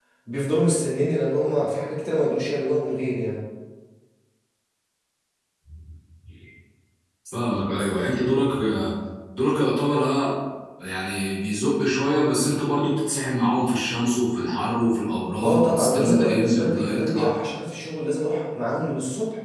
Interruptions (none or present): present